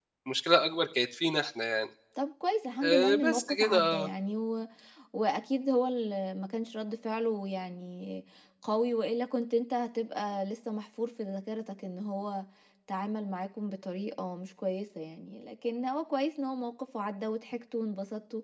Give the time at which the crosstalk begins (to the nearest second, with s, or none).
3 s